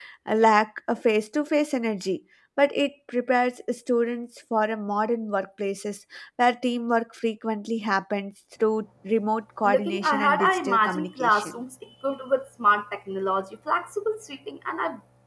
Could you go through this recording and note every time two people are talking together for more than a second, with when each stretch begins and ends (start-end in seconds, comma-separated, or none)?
9.6-11.5